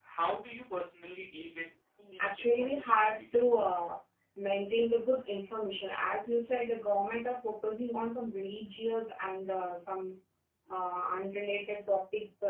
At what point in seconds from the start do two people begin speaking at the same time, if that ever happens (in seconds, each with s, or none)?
2.2 s